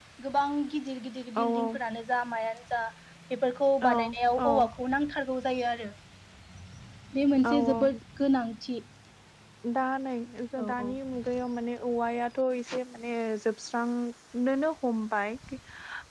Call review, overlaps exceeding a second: none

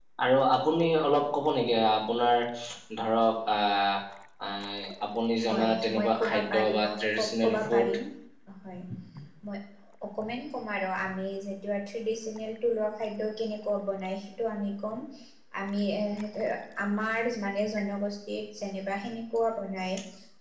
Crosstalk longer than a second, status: present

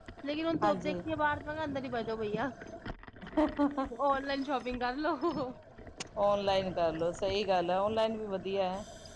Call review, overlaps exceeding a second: none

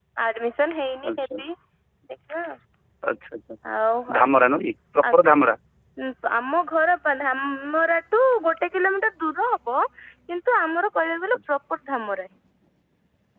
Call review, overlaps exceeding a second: none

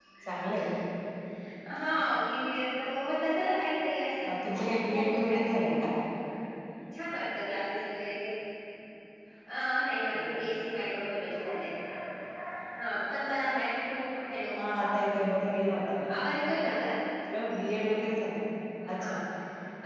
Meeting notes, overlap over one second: none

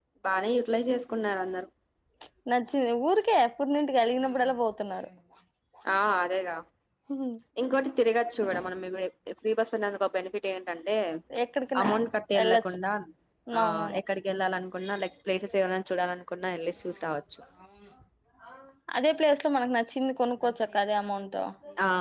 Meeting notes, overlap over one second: none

